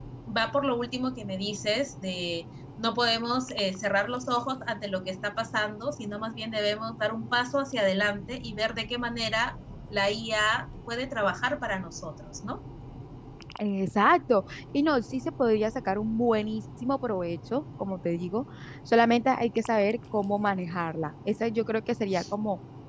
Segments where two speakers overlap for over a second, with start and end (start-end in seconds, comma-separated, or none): none